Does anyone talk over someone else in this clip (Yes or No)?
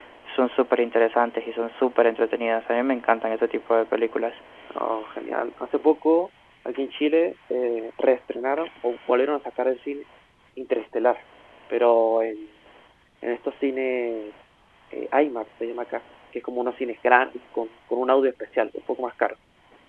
No